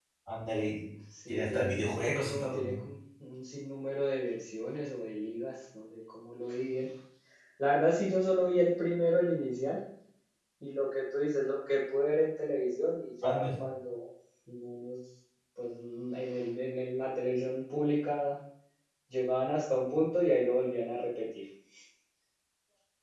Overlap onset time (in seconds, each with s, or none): 1.3 s